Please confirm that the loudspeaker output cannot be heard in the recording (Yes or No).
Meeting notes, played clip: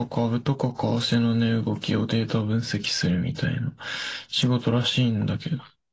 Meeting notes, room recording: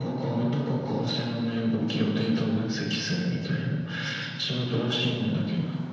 No